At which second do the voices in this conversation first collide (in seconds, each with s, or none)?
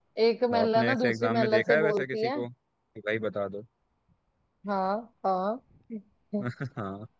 0.6 s